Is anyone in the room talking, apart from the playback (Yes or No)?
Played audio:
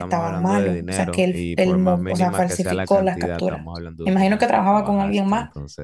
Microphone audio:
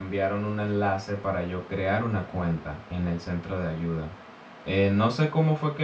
Yes